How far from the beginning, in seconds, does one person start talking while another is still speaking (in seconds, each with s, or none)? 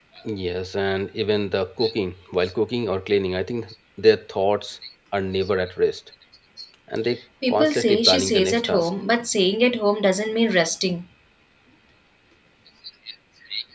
7.5 s